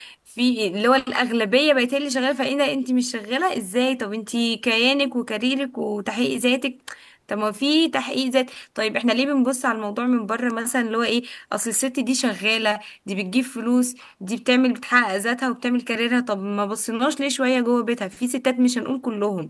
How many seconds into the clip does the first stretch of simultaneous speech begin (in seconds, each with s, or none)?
none